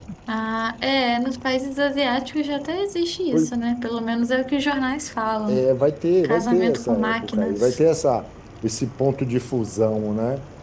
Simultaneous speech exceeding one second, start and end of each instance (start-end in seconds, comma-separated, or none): 6.2-7.8